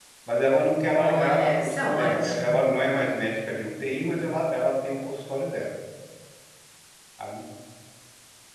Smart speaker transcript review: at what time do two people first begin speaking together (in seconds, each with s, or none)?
0.9 s